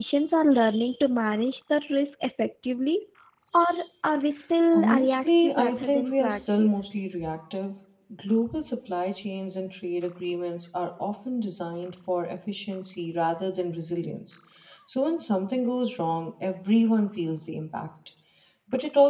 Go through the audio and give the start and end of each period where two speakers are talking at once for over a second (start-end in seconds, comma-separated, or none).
4.7-6.8